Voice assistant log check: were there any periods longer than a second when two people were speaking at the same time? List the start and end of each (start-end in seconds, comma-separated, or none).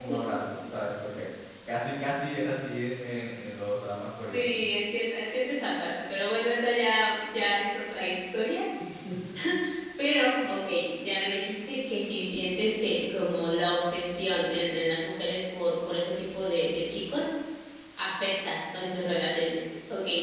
none